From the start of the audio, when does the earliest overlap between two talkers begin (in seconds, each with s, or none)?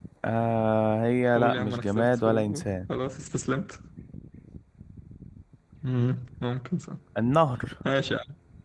1.4 s